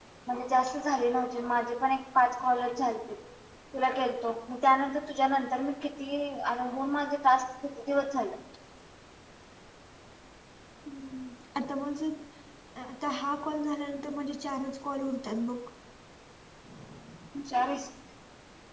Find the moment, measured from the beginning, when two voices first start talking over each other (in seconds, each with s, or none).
none